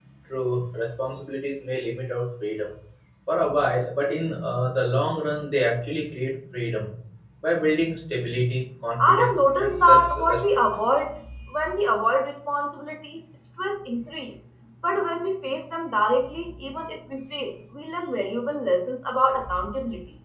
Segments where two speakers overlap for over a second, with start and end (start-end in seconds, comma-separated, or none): 9.0-10.6